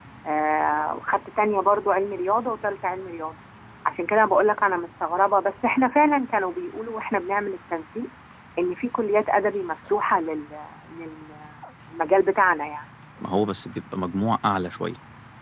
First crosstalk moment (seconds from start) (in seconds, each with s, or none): none